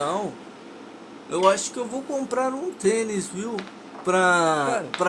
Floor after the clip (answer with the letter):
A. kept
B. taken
A